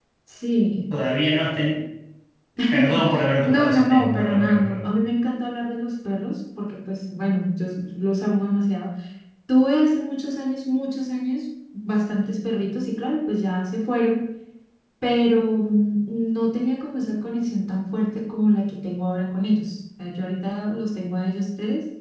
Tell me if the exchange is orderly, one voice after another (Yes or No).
No